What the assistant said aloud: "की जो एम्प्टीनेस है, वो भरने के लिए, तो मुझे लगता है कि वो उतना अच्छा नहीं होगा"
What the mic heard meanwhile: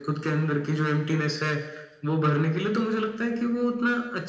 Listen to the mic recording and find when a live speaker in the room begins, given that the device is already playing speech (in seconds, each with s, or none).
none